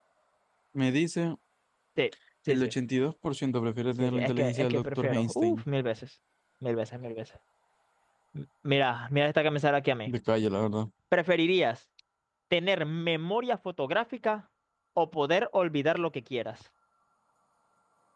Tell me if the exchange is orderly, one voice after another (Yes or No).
No